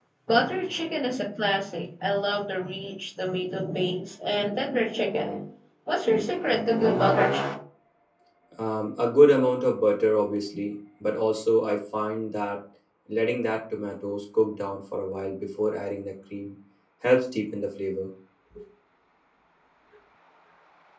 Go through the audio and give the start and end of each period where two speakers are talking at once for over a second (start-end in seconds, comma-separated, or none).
none